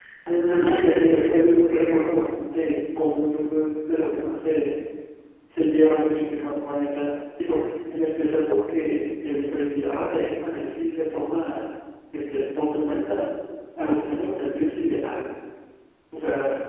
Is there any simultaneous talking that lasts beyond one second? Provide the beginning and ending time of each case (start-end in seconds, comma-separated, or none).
0.5-2.0